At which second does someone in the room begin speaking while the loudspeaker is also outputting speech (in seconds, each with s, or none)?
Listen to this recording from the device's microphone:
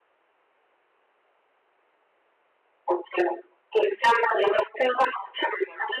none